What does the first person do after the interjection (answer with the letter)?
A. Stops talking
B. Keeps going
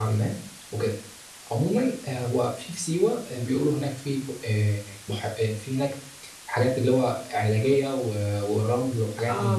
A